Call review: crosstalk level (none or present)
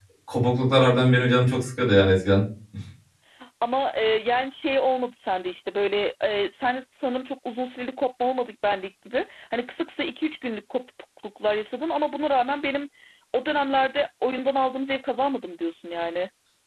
none